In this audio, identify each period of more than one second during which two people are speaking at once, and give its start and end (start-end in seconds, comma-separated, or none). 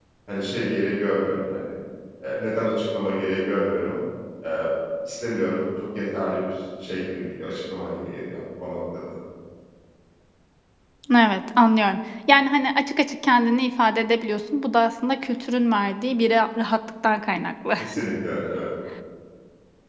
none